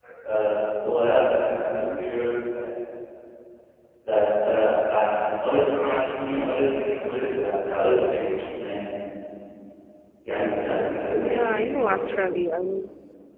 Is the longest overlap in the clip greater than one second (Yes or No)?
Yes